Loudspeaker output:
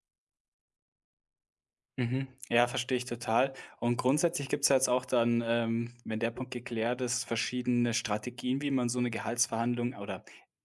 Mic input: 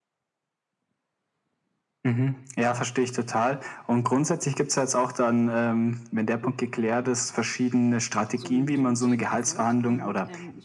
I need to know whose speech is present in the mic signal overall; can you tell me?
both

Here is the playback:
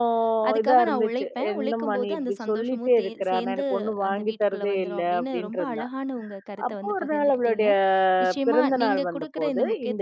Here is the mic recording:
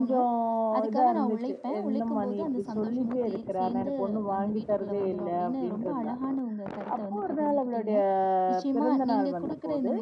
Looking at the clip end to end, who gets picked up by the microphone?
echo only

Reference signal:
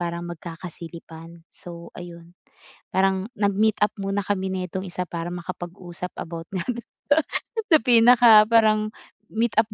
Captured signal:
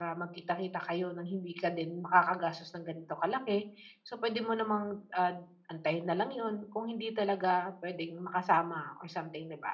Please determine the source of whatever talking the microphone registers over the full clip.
user only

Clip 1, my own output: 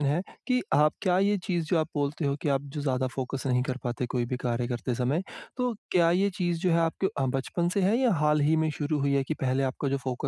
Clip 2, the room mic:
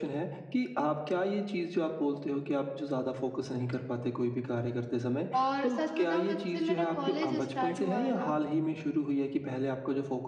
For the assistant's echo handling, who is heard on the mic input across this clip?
both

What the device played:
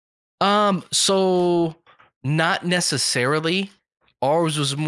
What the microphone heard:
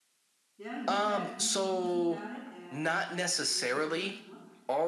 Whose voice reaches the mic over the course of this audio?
both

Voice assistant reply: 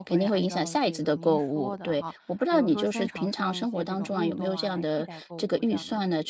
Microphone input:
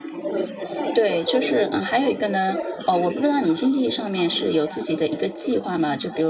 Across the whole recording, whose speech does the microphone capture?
both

